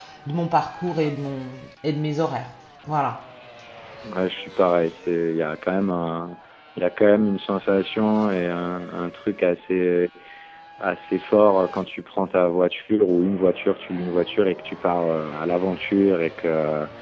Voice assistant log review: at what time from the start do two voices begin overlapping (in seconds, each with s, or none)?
none